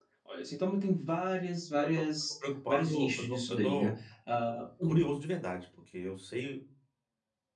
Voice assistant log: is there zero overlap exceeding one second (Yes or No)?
No